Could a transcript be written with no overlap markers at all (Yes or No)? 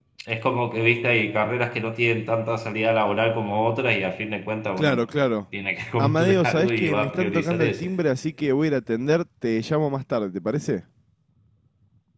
No